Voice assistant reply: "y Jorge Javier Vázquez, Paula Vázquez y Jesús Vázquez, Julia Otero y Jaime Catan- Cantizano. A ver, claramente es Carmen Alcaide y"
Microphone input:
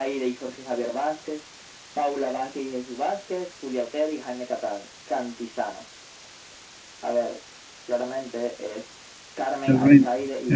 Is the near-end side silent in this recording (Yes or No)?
No